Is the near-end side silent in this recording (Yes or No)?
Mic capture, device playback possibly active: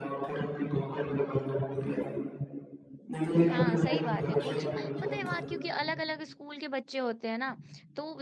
No